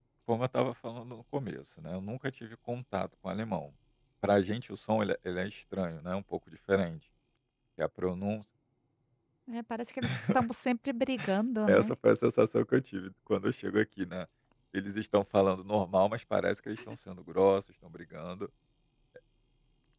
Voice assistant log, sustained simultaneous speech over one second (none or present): none